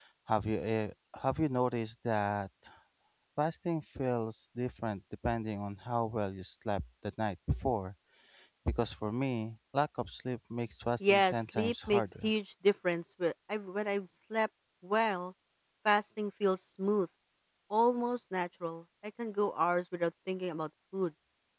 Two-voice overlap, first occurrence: 11 s

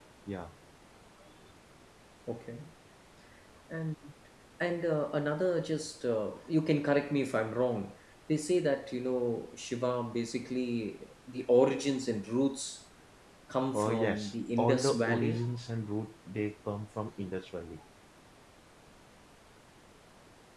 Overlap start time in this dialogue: 14 s

